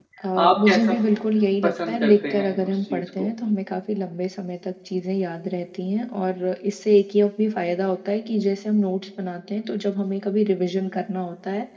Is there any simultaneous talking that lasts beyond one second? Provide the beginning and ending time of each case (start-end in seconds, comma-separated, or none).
1.6-3.3